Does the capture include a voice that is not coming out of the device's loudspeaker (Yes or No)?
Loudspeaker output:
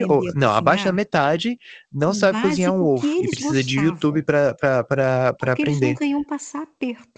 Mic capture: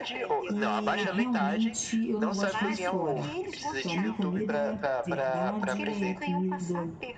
Yes